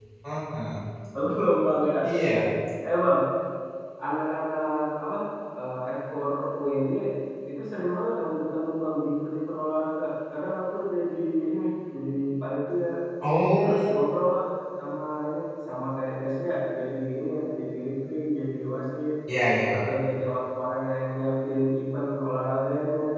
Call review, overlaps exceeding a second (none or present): none